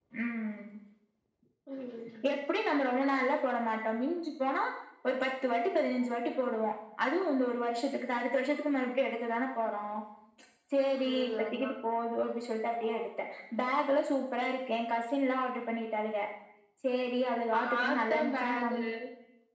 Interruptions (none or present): present